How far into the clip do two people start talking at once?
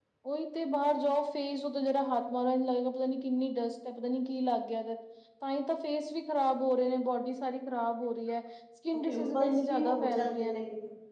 9.1 s

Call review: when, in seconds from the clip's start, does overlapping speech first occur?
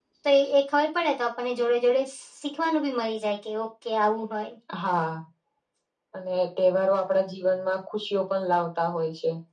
none

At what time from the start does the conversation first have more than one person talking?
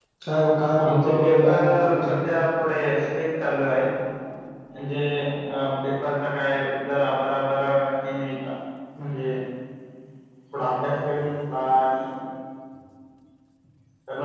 0.8 s

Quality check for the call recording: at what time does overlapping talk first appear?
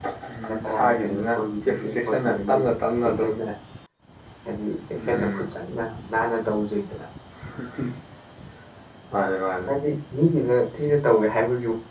0.6 s

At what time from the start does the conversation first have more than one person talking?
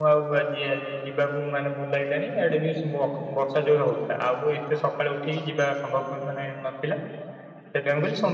none

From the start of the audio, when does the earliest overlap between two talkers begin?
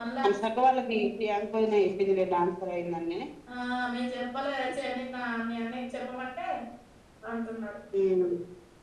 none

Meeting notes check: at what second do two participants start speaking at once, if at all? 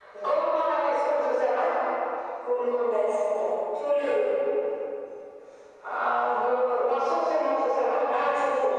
none

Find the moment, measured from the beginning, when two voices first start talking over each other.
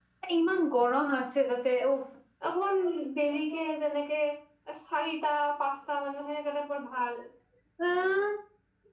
none

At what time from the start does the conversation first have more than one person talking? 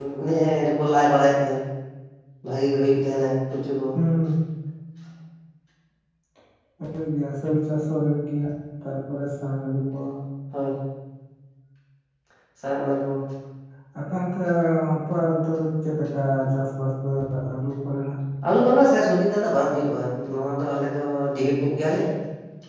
none

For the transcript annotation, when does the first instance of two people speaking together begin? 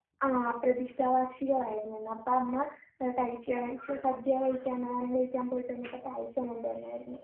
none

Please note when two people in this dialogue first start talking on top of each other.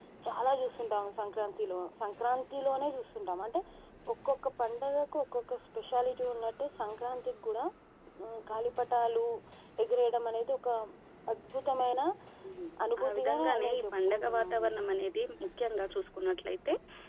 13.0 s

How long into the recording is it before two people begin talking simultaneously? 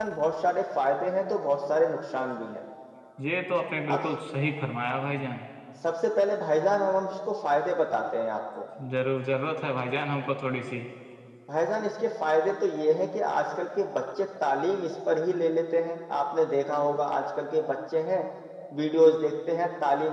none

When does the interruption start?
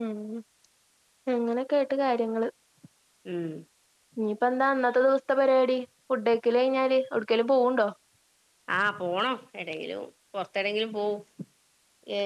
none

